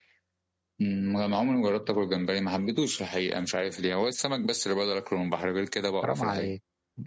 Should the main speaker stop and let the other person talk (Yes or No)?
Yes